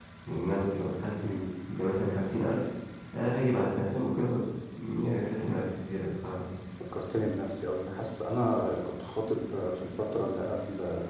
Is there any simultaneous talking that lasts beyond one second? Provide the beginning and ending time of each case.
none

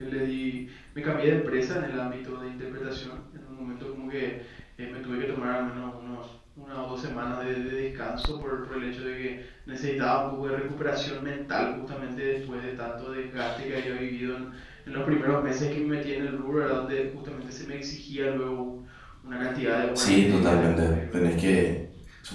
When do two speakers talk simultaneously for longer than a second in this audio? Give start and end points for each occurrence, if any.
19.9-21.2

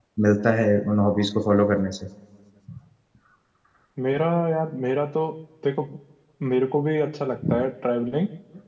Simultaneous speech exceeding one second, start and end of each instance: none

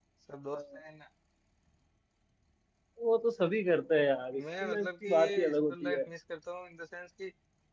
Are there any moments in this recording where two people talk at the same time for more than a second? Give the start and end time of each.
4.3-6.0

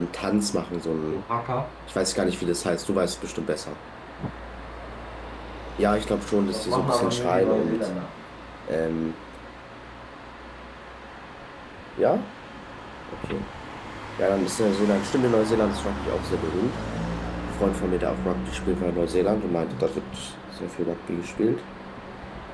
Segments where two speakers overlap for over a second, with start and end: 6.5-7.9

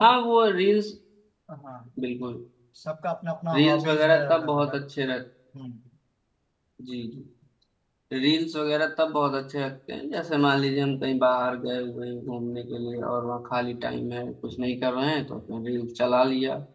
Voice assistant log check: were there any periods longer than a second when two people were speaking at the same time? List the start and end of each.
3.5-4.8

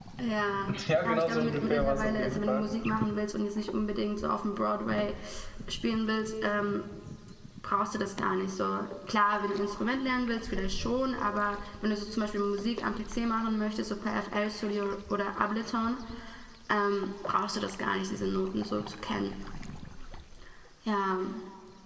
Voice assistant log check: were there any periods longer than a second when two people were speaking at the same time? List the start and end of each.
1.0-2.7

